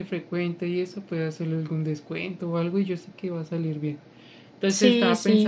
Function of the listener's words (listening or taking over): listening